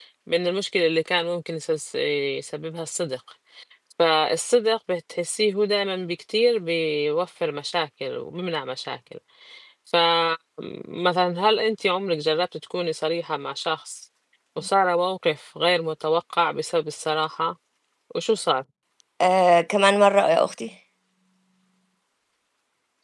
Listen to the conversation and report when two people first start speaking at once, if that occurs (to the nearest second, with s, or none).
none